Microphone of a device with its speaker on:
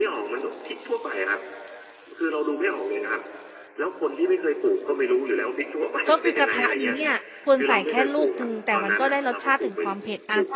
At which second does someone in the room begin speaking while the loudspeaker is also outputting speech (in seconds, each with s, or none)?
6.1 s